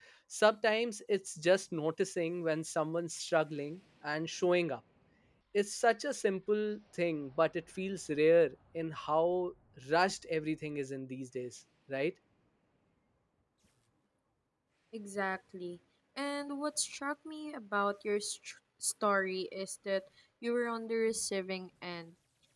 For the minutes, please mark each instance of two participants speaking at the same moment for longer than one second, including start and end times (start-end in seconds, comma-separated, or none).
none